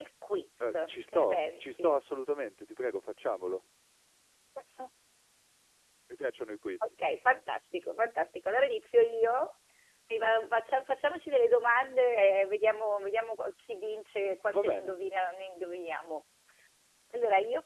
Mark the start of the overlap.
0.7 s

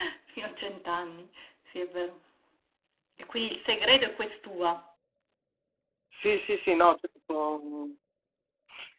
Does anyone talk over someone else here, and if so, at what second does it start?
none

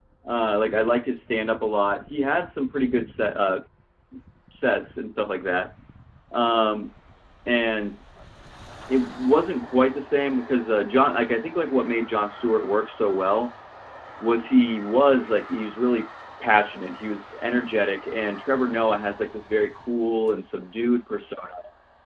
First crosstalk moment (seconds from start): none

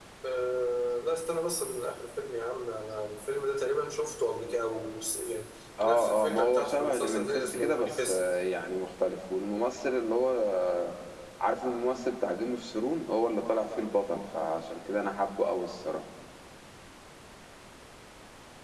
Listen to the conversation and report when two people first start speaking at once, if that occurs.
5.8 s

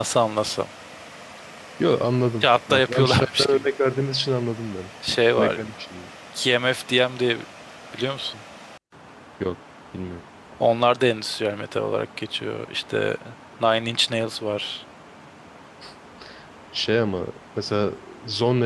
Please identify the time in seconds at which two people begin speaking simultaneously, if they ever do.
2.4 s

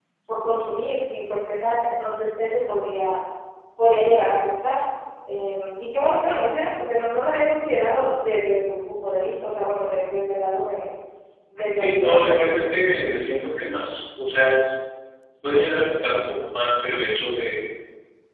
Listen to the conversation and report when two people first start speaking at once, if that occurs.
11.8 s

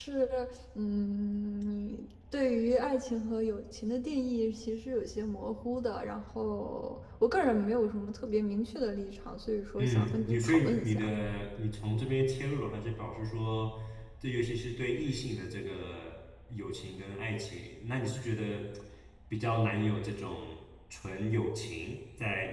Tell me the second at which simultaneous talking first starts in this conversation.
9.8 s

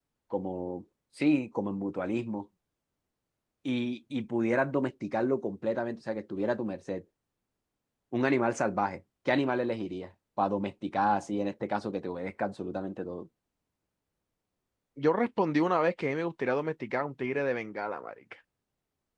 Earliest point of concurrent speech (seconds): none

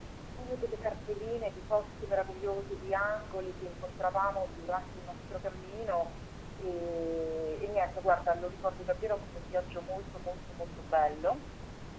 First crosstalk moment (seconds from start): none

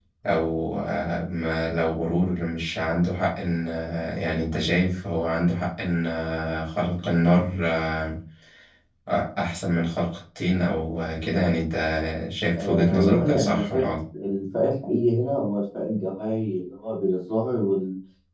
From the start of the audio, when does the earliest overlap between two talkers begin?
12.6 s

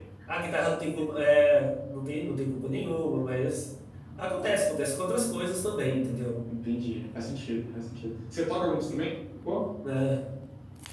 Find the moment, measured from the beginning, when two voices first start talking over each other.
none

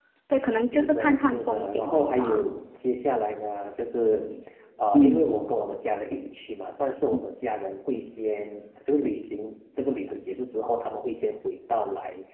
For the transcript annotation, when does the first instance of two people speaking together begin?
0.7 s

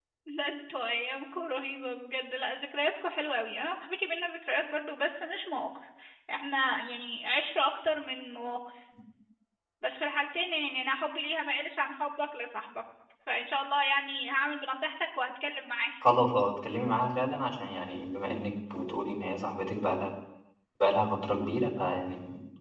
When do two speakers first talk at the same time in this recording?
none

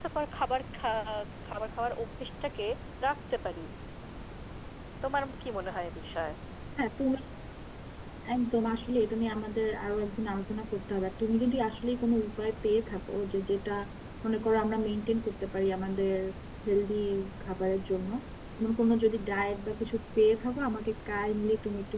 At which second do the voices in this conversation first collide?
none

